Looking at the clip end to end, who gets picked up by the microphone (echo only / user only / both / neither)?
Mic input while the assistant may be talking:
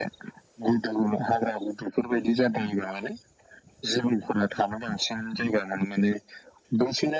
echo only